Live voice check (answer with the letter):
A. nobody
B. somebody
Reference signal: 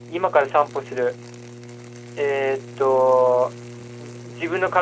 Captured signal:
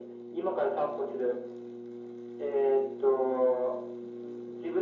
A